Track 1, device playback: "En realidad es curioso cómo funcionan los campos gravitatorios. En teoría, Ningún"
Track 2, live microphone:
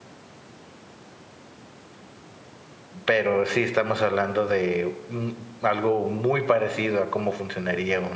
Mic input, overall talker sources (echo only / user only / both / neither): user only